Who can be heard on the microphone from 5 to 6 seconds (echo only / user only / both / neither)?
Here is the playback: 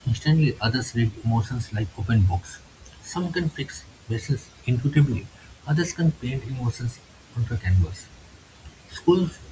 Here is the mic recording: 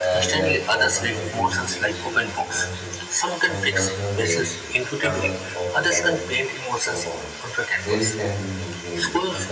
both